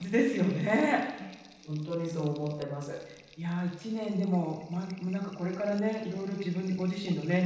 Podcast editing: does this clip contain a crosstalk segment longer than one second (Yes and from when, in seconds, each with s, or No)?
No